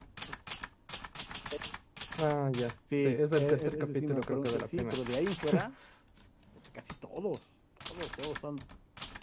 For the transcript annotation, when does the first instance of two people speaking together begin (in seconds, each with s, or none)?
3.0 s